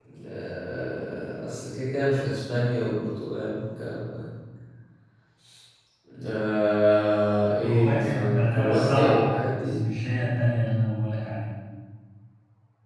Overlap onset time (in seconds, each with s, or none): 7.5 s